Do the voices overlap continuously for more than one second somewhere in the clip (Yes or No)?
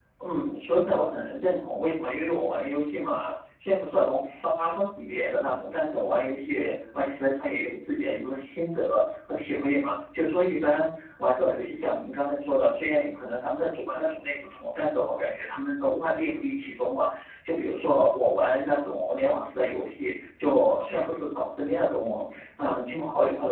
No